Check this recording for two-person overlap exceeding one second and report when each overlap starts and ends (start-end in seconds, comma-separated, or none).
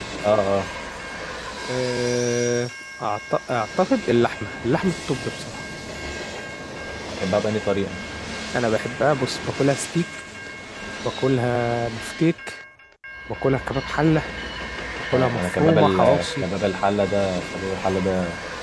15.1-16.4